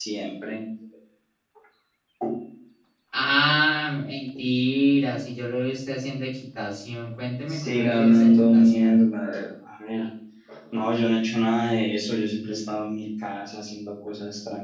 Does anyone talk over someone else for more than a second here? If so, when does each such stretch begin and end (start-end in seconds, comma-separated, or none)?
7.5-9.0